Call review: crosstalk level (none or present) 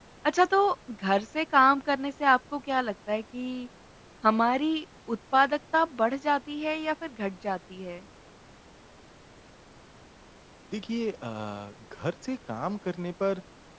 none